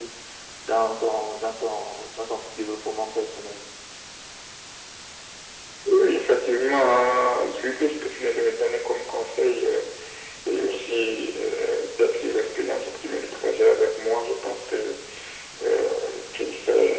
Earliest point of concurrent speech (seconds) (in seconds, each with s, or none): none